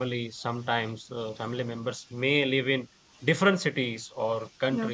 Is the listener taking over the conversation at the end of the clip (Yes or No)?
No